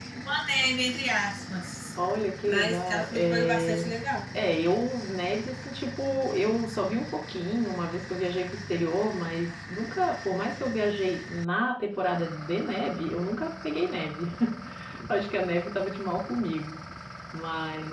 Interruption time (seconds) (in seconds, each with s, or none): 2.5 s